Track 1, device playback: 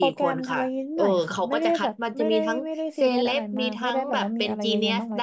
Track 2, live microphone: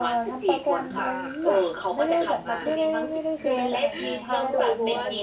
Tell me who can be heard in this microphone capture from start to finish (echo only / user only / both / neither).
both